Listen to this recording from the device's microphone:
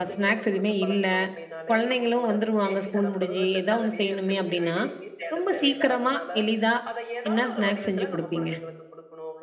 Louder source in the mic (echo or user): user